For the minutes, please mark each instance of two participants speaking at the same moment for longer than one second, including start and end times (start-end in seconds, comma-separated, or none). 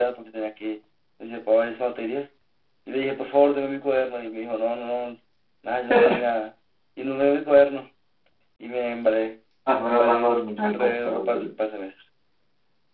9.7-11.5